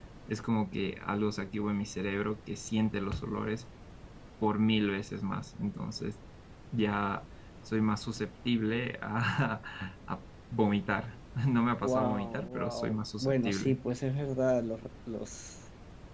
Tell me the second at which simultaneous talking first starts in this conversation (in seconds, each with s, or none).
11.8 s